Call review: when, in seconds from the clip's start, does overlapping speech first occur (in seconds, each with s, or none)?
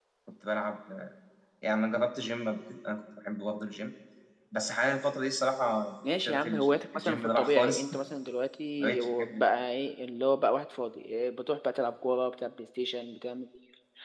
6.0 s